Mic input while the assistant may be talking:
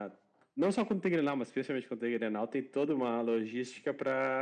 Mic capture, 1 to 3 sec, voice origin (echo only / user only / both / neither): echo only